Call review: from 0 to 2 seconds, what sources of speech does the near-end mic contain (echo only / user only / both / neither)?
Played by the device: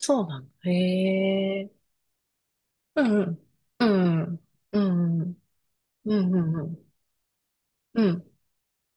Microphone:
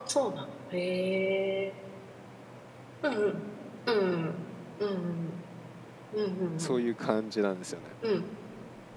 echo only